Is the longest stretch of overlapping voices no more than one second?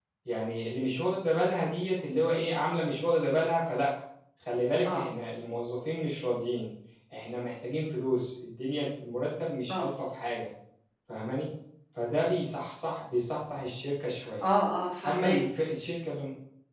Yes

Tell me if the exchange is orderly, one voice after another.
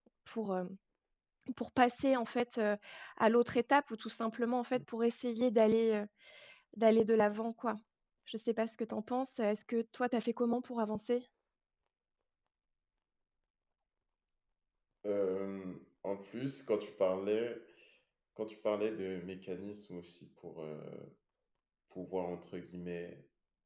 Yes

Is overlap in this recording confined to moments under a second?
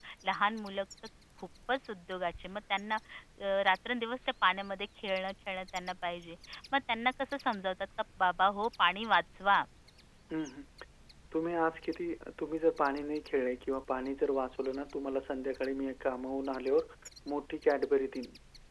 Yes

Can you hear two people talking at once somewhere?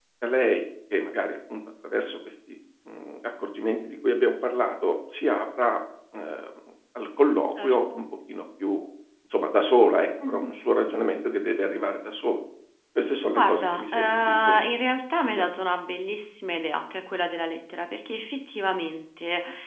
Yes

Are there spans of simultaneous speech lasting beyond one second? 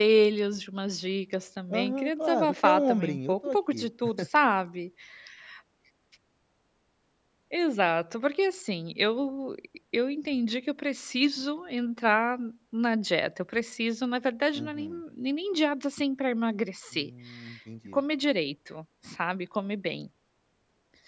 Yes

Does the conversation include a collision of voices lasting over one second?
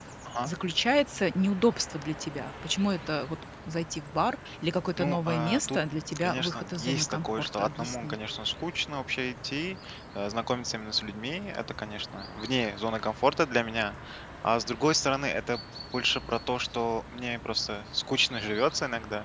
Yes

